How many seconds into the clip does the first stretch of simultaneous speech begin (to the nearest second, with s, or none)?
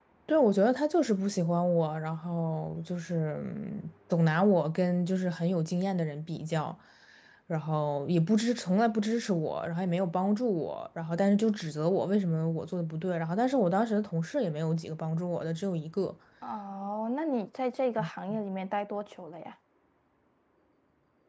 none